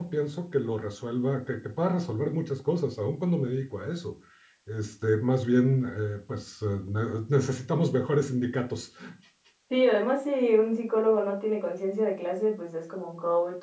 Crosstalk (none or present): none